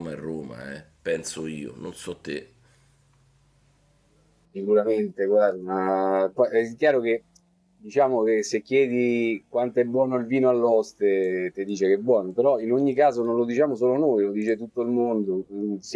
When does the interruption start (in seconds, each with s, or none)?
none